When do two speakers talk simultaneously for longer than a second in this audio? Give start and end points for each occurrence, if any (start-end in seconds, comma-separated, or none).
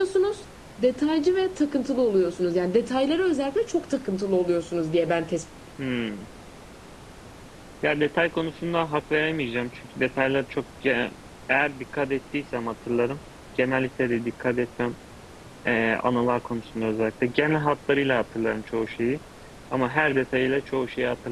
none